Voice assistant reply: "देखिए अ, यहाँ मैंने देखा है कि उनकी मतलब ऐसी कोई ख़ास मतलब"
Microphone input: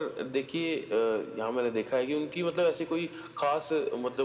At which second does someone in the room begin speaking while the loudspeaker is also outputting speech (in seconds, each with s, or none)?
none